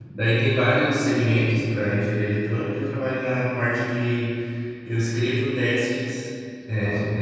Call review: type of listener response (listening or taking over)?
listening